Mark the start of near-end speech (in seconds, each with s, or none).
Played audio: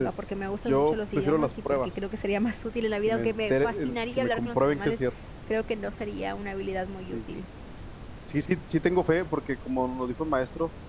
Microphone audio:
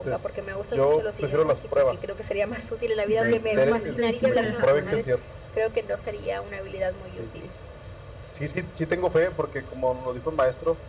3.1 s